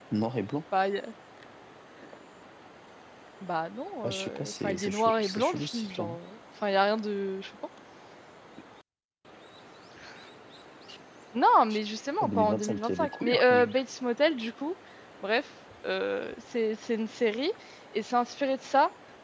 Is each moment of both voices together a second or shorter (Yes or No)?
No